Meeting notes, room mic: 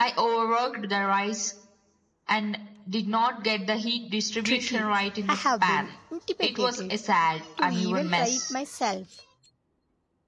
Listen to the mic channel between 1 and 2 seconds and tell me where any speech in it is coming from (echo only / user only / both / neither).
echo only